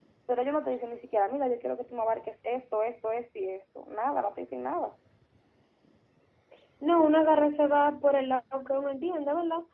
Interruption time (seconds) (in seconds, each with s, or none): none